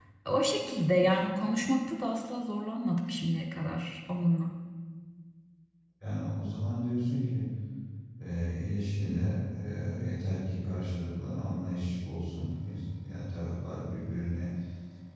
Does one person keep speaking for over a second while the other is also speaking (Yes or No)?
No